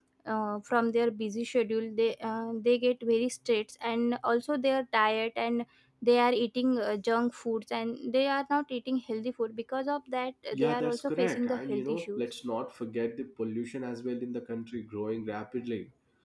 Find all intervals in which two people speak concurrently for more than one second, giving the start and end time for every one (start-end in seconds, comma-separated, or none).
10.5-12.2